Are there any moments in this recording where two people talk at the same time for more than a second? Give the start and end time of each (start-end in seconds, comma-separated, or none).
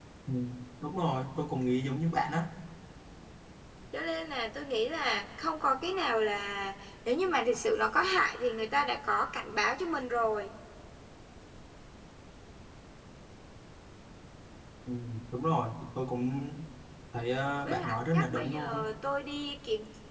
17.6-18.8